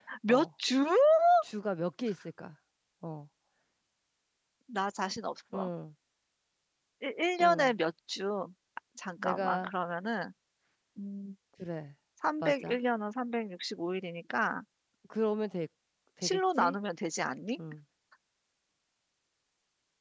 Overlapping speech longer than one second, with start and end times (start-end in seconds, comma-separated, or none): none